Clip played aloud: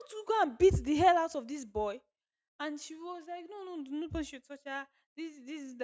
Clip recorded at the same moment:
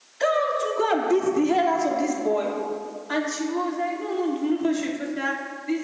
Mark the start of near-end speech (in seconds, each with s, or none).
none